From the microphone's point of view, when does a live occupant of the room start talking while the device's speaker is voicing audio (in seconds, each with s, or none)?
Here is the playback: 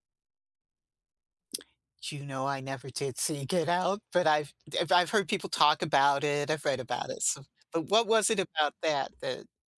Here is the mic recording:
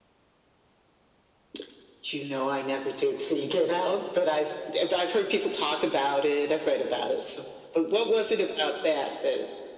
none